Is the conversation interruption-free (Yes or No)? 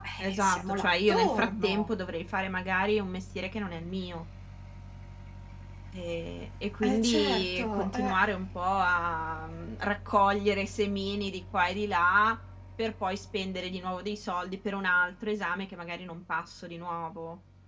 No